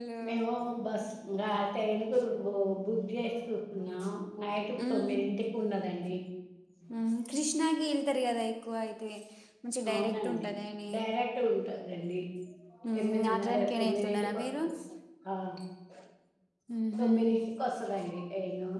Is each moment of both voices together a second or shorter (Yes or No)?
No